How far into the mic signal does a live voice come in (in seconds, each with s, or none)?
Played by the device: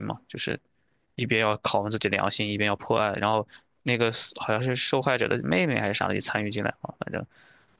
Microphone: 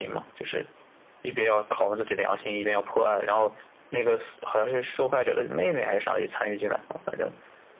none